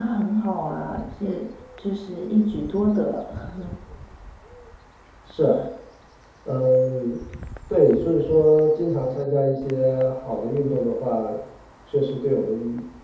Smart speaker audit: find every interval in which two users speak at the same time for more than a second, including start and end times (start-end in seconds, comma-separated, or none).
none